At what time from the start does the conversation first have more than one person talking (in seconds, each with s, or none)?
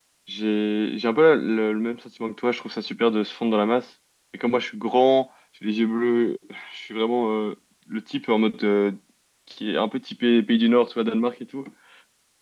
none